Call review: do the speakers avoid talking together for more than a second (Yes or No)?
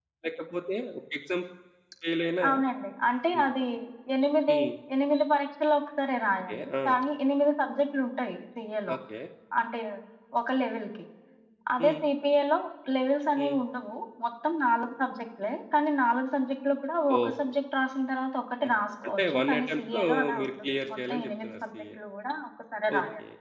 No